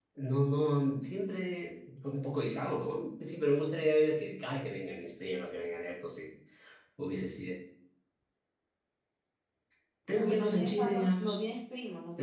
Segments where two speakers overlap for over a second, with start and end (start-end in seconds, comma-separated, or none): 10.1-11.4